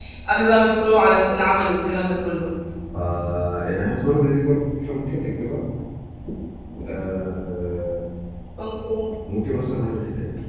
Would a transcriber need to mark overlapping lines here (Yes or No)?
No